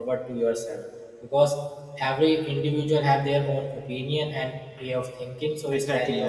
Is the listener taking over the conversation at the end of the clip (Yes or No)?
Yes